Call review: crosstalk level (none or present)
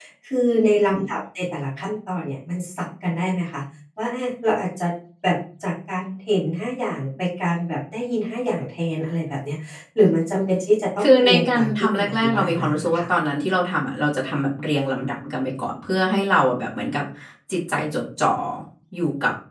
present